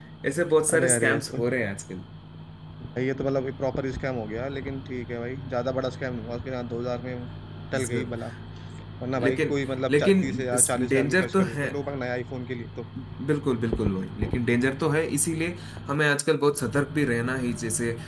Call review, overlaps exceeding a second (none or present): present